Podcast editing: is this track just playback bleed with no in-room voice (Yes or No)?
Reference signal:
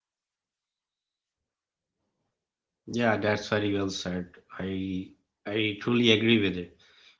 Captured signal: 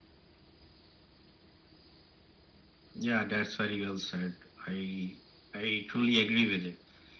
Yes